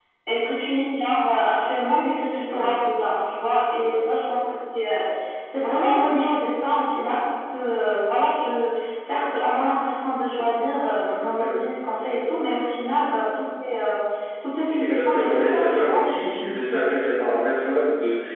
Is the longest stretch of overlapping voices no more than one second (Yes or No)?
No